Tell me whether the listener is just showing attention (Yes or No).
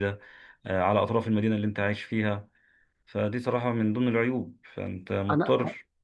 Yes